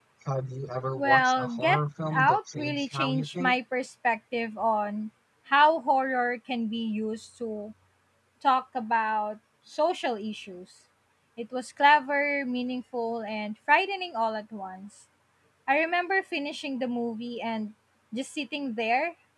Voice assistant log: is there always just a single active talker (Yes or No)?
No